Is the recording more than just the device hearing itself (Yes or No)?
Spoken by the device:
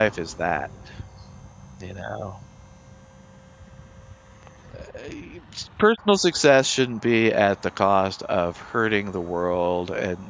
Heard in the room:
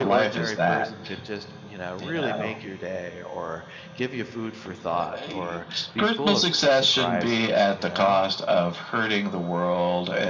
Yes